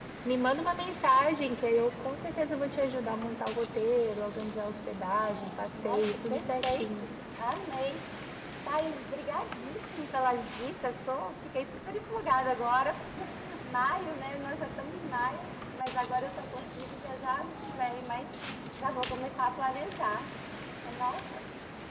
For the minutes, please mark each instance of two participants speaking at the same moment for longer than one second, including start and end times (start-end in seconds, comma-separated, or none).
5.8-7.0